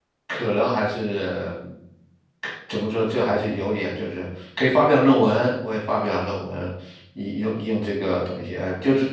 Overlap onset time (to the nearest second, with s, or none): none